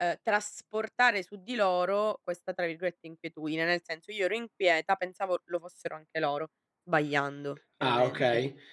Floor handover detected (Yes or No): Yes